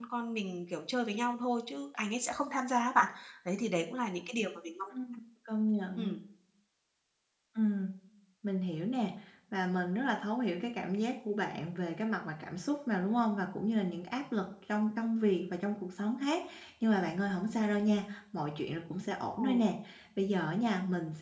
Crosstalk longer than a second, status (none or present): none